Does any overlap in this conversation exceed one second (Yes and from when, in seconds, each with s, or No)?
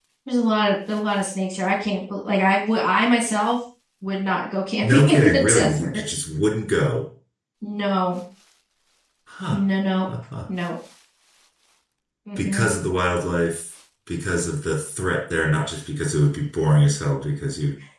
Yes, from 4.8 s